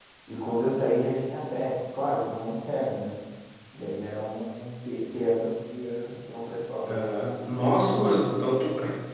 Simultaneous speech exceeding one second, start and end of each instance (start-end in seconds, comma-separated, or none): none